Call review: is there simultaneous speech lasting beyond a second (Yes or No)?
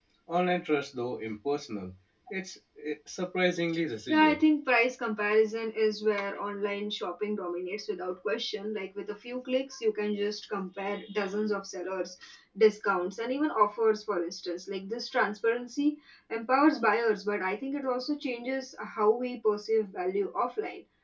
No